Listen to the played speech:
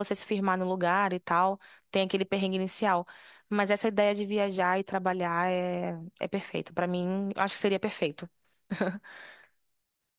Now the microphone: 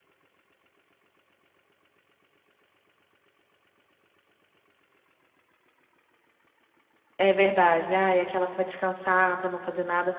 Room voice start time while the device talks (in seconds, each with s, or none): 7.2 s